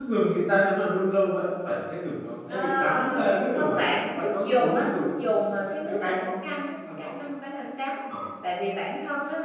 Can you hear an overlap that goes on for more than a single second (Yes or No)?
Yes